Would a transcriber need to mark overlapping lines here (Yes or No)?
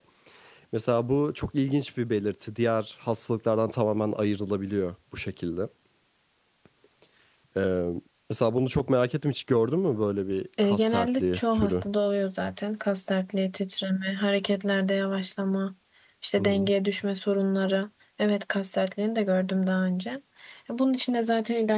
Yes